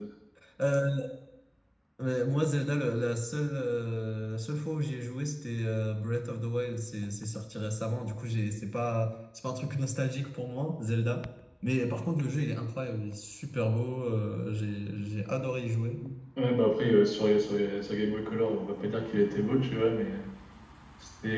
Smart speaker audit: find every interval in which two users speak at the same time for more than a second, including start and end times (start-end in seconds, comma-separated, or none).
none